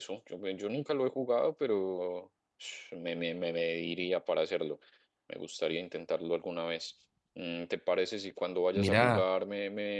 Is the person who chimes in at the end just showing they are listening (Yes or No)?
Yes